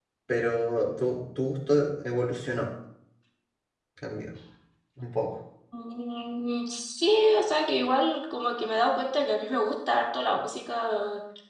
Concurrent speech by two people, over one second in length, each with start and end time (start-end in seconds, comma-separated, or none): none